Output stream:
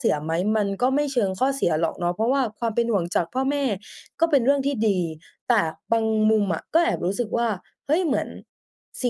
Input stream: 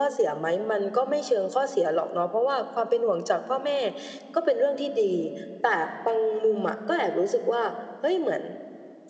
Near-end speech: none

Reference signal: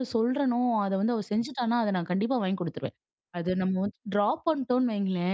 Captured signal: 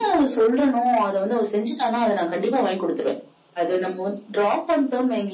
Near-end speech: none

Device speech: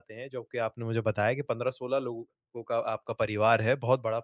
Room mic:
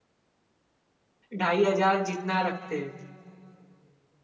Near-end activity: present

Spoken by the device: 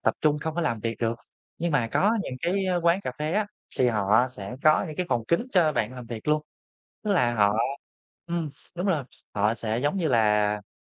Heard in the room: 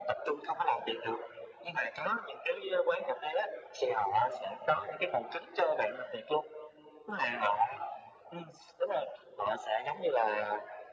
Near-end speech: none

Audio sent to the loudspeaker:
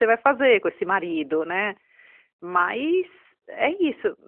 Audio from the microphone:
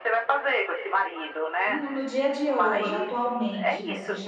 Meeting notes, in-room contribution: present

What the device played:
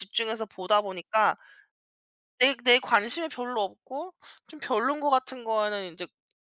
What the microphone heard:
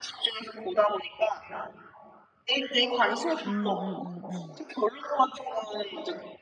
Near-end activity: present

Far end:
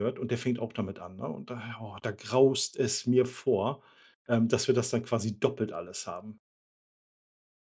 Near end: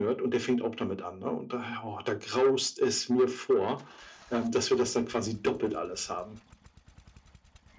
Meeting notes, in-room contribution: none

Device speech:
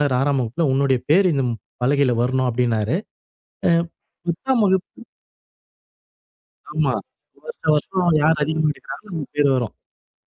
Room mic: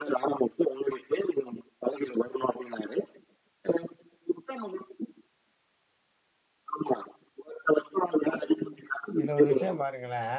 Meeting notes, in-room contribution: present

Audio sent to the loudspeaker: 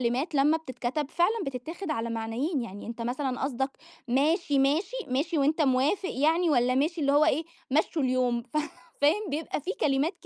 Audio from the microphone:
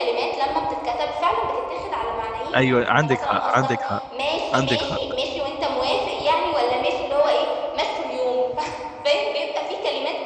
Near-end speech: present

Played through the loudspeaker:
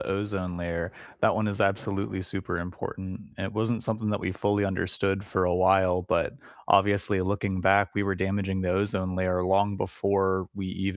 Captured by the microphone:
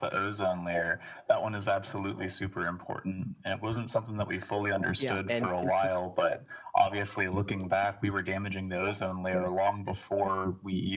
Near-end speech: present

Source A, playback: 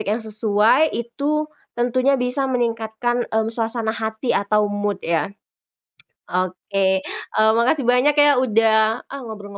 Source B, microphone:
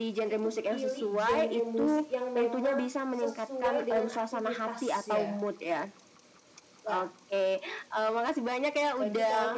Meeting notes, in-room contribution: present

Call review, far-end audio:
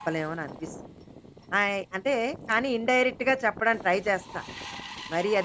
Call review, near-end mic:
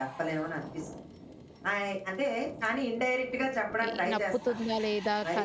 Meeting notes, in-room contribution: present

